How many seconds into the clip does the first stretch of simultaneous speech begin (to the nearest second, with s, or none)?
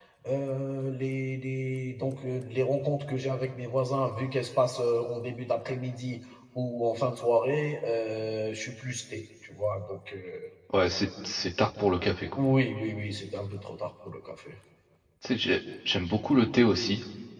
none